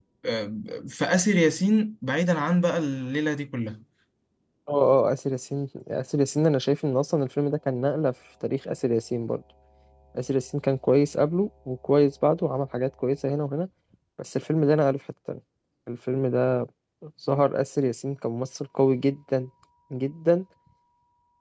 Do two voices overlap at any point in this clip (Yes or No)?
No